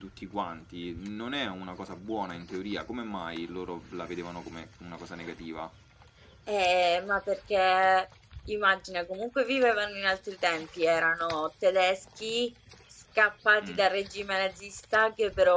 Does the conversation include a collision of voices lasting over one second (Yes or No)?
No